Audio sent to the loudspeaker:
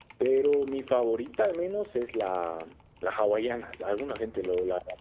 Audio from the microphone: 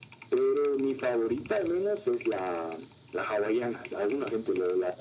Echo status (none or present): present